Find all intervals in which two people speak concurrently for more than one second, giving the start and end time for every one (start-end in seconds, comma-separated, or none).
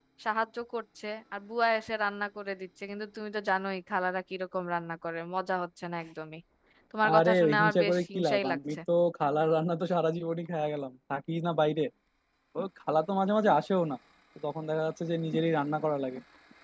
7.1-8.8